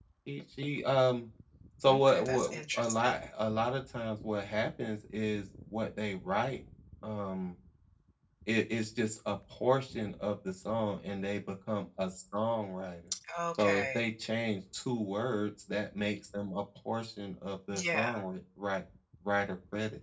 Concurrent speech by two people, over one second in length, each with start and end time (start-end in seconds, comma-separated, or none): 1.9-3.1